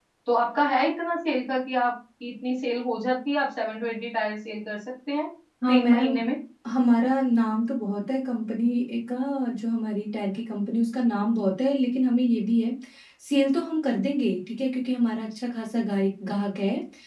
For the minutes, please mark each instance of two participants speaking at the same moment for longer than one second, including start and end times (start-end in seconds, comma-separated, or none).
none